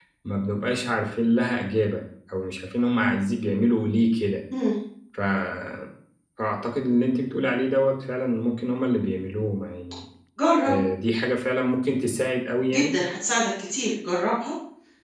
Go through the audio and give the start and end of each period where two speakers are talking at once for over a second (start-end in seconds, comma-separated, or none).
none